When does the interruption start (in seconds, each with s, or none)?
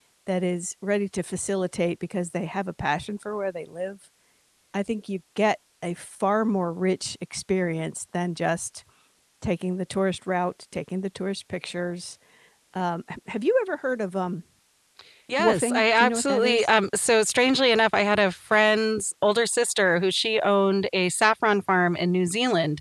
15.4 s